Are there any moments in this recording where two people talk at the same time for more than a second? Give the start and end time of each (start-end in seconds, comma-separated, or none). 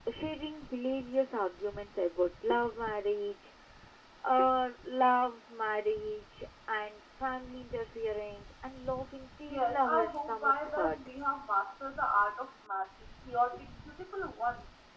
9.5-11.1